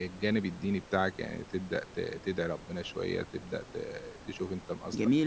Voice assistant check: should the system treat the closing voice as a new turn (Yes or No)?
Yes